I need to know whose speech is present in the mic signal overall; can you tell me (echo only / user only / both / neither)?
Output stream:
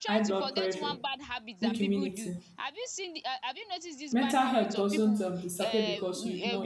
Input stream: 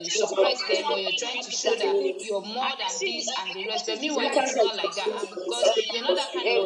both